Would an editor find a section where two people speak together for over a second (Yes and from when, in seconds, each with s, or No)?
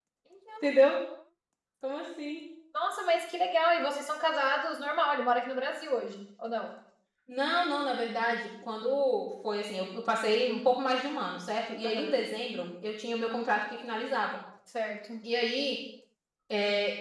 No